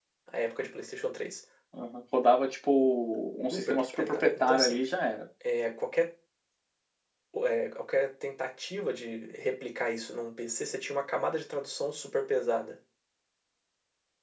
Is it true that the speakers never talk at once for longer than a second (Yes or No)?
No